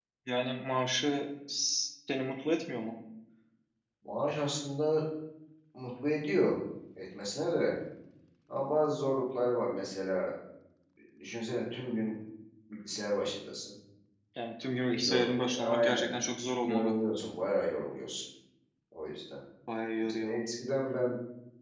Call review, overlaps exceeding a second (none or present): present